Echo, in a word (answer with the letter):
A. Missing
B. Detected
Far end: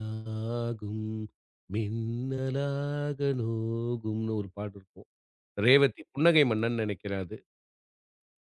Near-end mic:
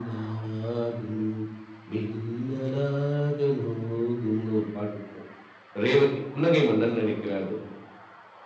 B